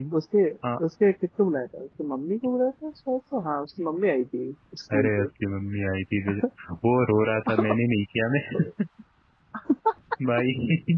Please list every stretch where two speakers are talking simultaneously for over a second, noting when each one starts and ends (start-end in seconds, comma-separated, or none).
none